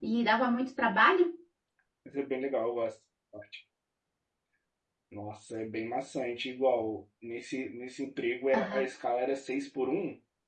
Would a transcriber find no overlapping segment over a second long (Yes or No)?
Yes